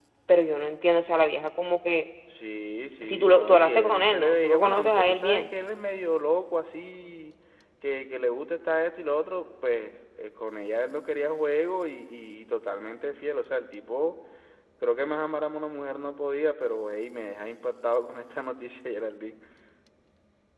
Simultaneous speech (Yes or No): Yes